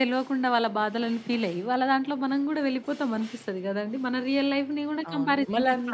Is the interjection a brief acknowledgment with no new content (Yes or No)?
No